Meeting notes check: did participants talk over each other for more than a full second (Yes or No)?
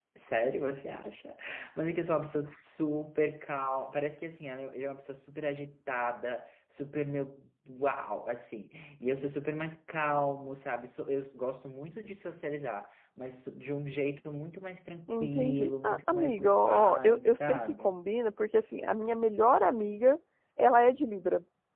Yes